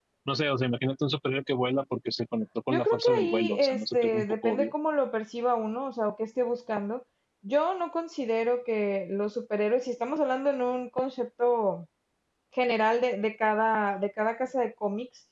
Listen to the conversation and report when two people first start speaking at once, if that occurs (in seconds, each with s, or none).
2.7 s